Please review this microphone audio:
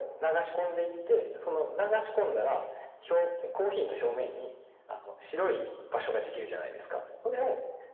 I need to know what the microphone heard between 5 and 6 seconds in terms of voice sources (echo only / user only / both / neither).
echo only